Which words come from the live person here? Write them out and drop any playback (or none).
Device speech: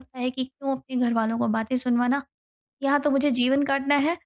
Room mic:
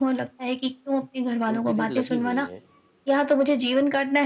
उनके लिए लगी हुई हैं